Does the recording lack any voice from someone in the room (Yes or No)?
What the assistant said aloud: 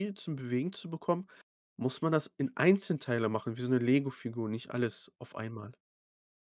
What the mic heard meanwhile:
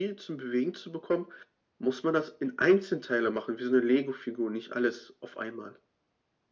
Yes